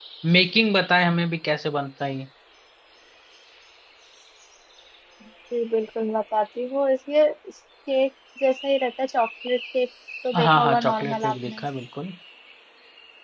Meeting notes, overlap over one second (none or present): present